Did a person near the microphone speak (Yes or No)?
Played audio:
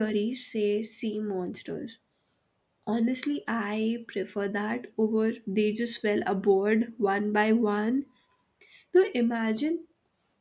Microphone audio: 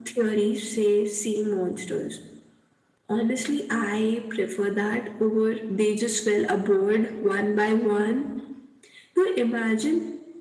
No